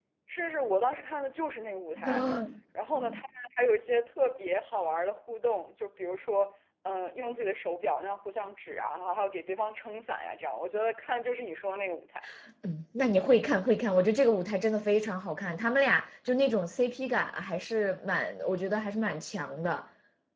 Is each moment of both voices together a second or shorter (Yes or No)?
Yes